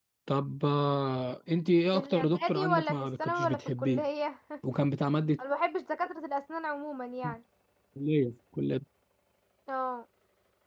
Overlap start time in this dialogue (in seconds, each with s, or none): 1.9 s